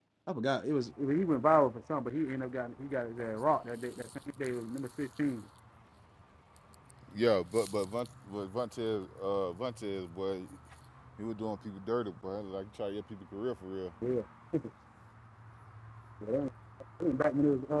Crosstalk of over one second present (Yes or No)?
No